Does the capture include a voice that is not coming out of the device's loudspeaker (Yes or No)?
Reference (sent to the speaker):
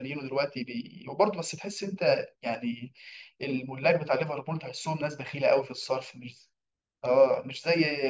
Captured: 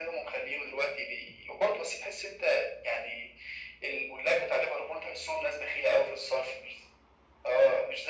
No